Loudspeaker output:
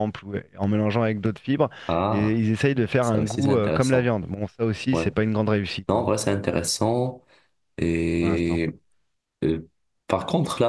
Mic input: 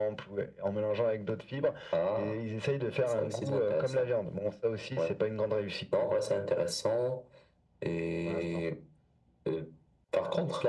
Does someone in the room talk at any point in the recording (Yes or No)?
No